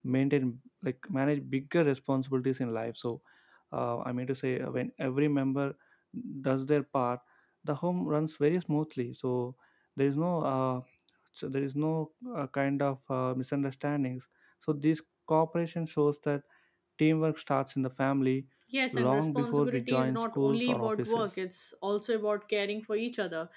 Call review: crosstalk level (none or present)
present